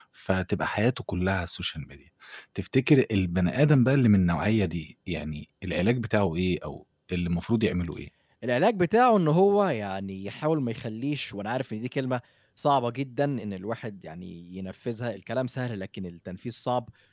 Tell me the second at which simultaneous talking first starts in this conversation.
none

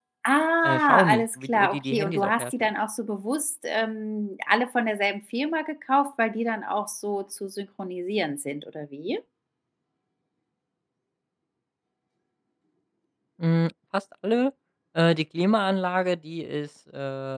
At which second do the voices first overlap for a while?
0.6 s

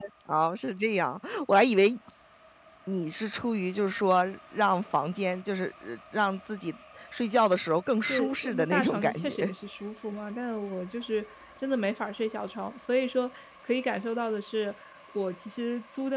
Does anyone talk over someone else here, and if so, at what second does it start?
8.0 s

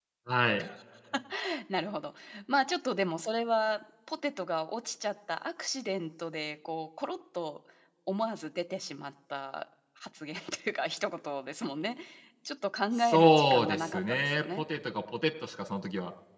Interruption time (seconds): 13.0 s

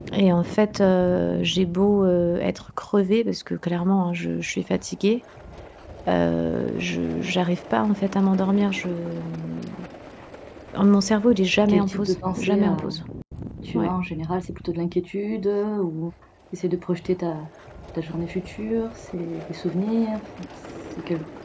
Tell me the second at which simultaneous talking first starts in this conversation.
11.7 s

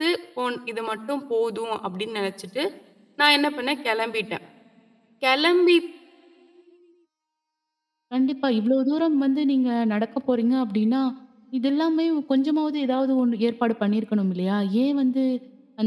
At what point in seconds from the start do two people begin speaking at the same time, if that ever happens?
none

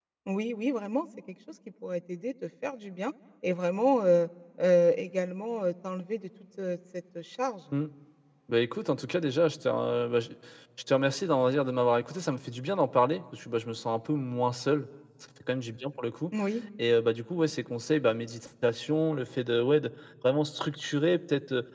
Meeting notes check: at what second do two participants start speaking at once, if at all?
none

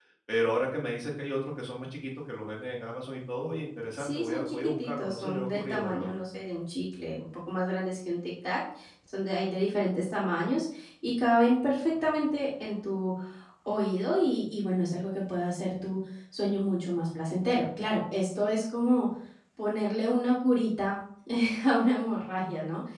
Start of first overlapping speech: 4.0 s

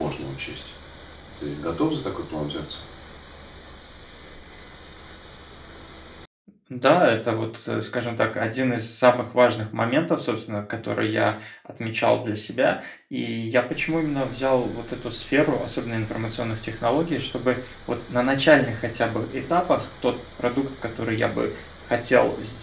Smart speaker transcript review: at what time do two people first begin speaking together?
none

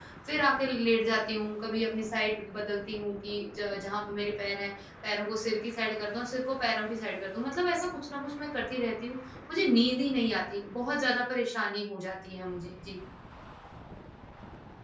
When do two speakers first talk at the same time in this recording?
none

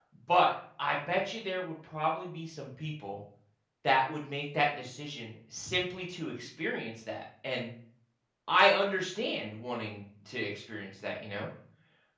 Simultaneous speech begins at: none

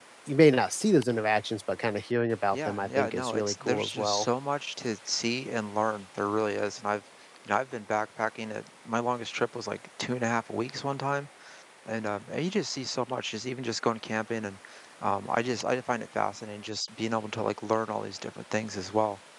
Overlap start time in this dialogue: 2.5 s

